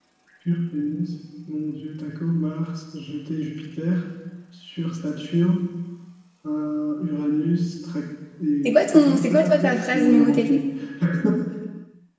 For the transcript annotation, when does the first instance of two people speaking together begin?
9 s

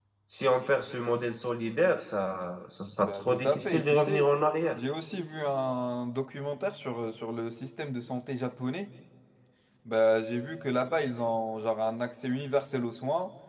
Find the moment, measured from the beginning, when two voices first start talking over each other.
3 s

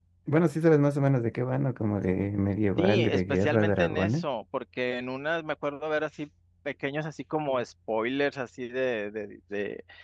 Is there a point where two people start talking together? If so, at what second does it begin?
3 s

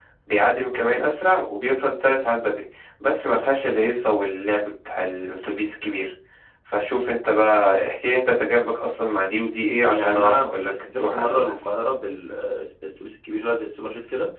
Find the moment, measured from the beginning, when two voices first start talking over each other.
10 s

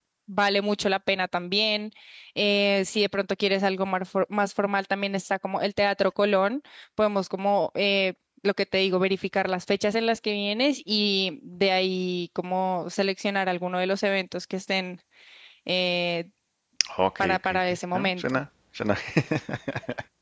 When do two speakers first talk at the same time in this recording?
17 s

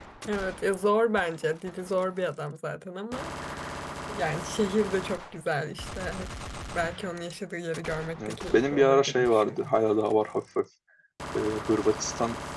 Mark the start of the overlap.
8 s

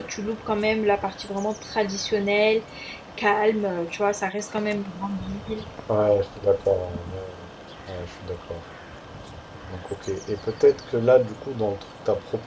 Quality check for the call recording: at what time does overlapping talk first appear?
none

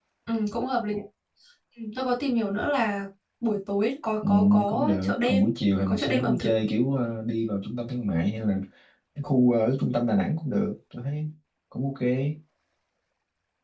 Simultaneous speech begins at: 4 s

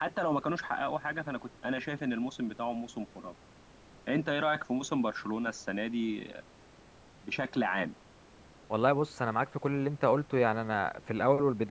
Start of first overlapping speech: none

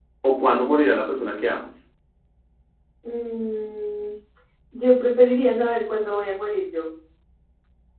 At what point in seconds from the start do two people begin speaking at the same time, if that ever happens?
none

